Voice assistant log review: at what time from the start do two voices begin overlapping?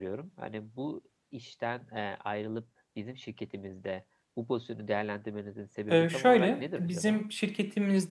5.9 s

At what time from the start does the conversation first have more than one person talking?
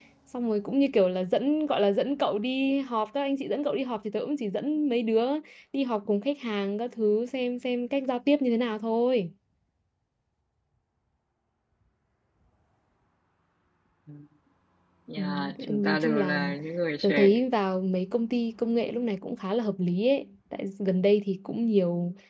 15.2 s

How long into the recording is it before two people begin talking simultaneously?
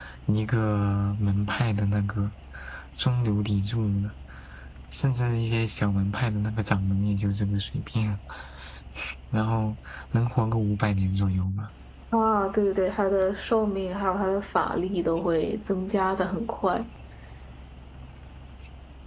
none

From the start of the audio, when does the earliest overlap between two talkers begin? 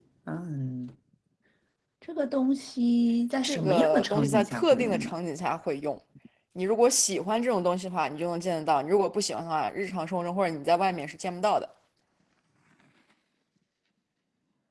3.4 s

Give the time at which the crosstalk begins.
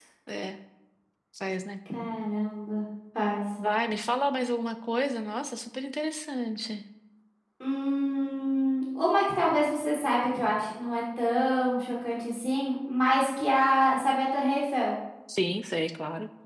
none

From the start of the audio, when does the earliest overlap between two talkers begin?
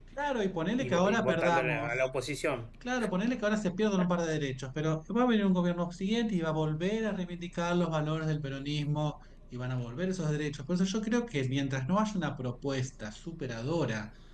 0.8 s

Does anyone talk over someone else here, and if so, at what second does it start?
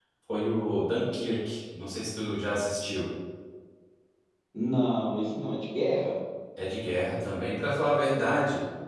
none

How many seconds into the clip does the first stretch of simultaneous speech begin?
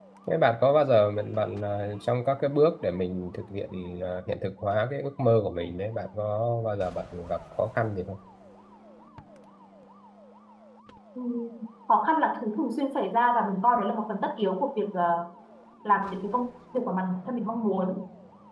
none

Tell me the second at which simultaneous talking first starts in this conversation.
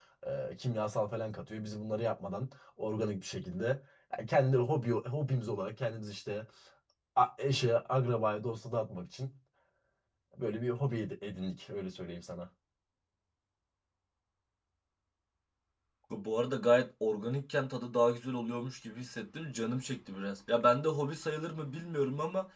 none

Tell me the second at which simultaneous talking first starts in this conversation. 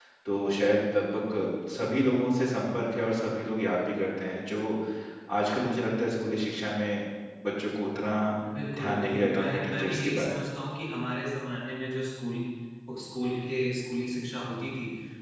8.8 s

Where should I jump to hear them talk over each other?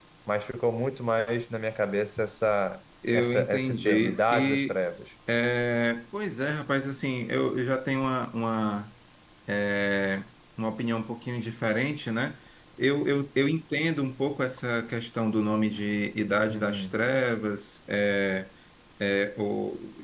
3.1 s

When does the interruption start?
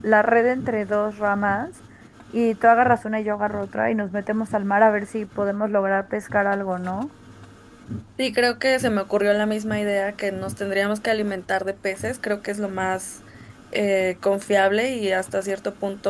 none

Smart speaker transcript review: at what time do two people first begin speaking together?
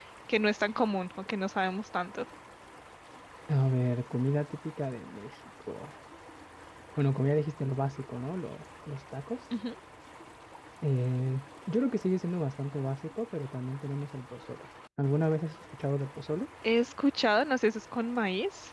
none

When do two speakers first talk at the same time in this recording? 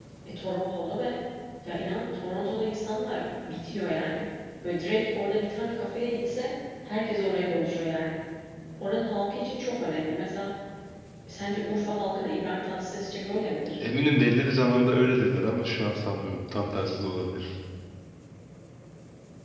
none

